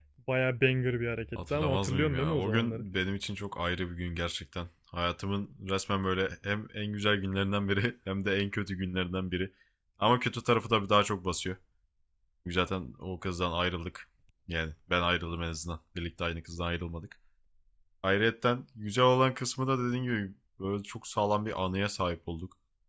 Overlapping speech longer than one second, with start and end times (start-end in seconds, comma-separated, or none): 1.4-2.9